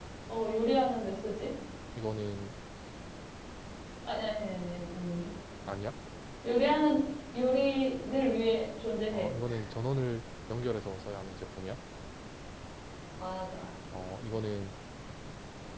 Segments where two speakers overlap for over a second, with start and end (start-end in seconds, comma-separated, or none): none